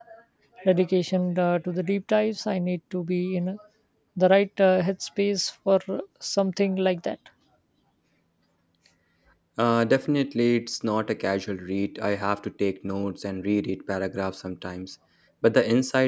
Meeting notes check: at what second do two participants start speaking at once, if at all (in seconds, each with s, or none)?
none